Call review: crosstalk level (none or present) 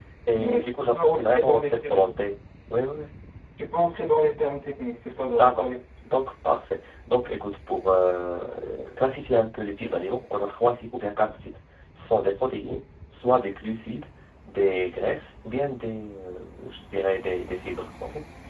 present